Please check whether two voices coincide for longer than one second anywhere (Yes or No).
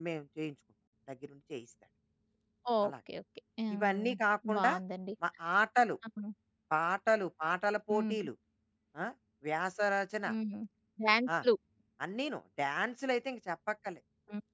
No